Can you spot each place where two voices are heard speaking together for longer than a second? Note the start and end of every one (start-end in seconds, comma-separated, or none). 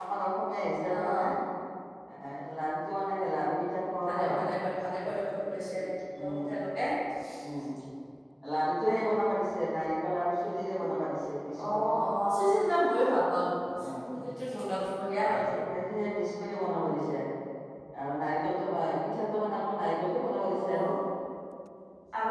none